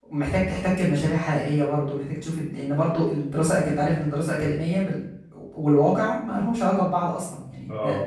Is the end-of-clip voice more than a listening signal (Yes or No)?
No